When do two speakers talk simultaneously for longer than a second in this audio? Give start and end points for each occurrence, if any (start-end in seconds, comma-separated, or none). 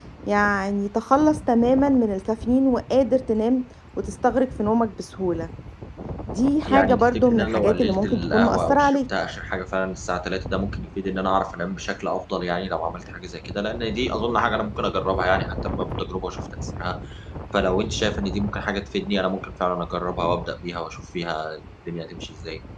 6.7-9.0